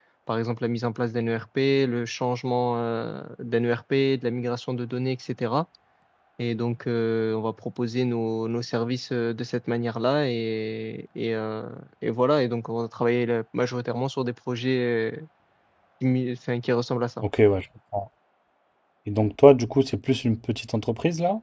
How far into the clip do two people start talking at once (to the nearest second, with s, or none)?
none